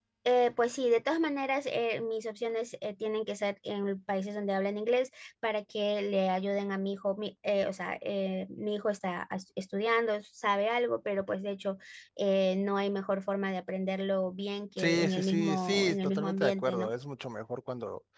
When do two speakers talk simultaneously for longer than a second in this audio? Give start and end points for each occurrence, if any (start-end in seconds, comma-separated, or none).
14.8-16.9